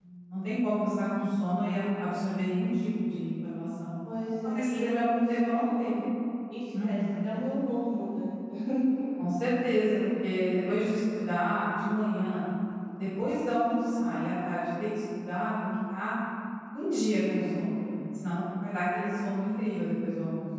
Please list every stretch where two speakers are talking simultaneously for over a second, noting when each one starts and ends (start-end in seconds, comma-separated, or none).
4.2-6.0